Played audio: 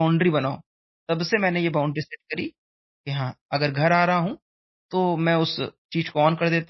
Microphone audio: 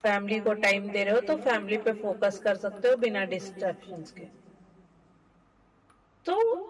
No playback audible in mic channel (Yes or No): Yes